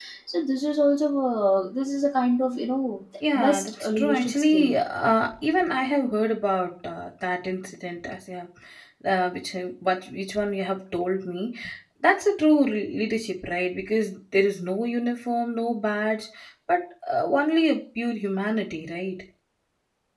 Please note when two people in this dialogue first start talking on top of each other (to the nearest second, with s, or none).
3 s